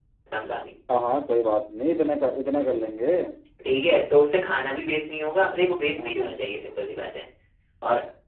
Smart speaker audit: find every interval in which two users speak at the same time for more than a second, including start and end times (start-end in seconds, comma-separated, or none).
none